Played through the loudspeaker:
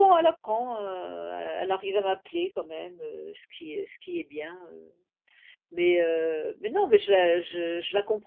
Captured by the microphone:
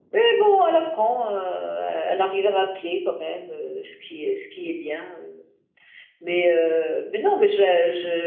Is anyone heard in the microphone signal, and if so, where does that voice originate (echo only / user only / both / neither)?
echo only